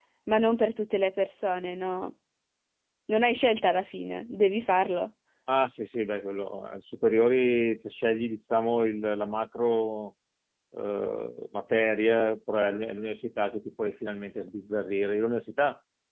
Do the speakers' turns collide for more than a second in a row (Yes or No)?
No